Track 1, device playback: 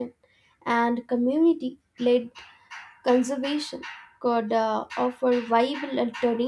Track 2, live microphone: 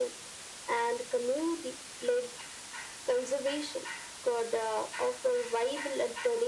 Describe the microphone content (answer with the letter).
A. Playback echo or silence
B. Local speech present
A